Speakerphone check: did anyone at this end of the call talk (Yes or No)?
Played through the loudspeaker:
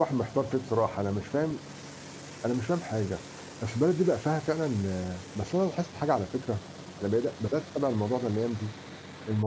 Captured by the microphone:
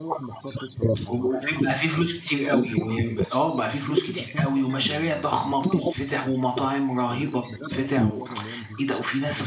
Yes